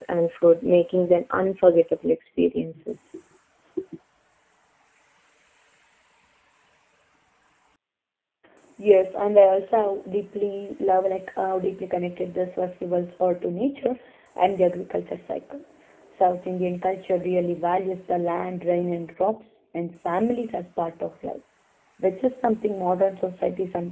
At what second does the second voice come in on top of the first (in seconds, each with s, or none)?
none